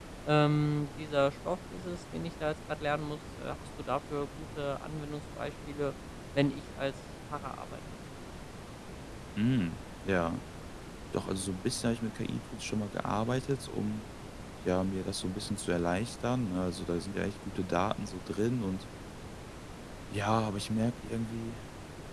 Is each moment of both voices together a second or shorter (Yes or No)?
Yes